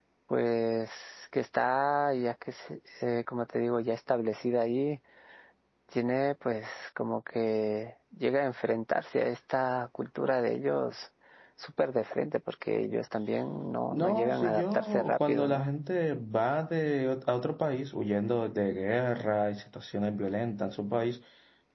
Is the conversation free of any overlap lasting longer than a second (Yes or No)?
No